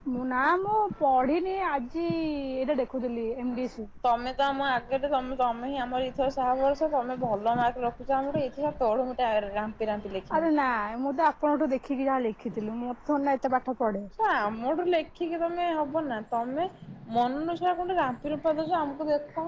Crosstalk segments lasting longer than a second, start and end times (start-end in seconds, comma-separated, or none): none